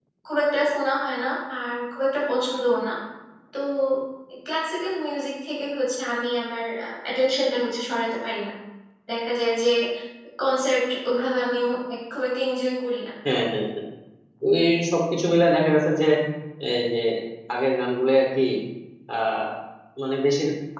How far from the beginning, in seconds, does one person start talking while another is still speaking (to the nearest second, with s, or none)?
none